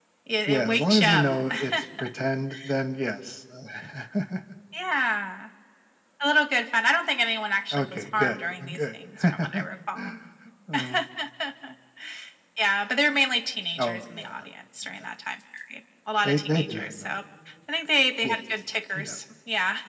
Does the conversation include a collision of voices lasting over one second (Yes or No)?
Yes